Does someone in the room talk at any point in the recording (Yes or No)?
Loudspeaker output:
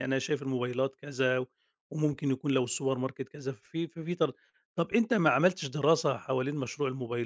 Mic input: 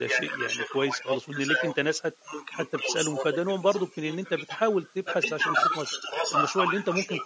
Yes